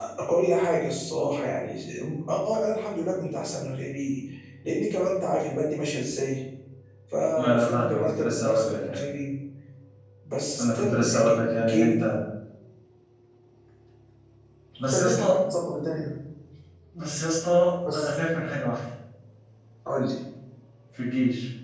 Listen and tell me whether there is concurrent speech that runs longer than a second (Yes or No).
Yes